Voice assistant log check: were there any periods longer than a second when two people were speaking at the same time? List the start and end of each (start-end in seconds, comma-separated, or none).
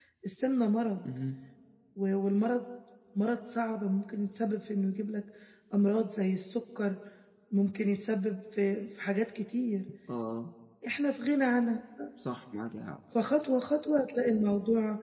none